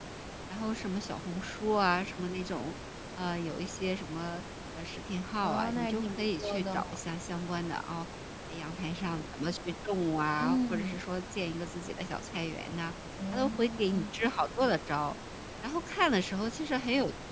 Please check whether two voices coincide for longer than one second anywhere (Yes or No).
Yes